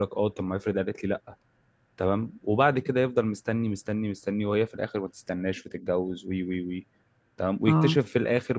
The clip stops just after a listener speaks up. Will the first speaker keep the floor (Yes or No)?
Yes